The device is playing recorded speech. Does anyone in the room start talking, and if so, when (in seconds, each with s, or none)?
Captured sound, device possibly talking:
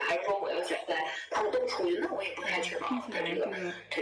2.4 s